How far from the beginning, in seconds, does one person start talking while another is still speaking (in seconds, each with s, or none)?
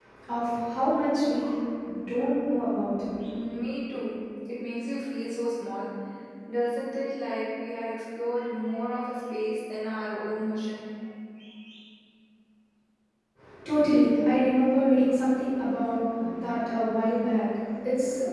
none